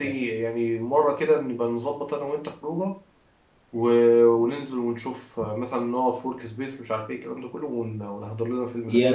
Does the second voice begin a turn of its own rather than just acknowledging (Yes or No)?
Yes